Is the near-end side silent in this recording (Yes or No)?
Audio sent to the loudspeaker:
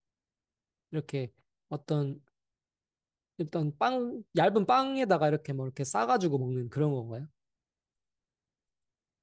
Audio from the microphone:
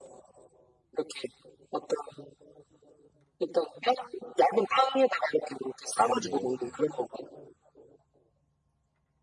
No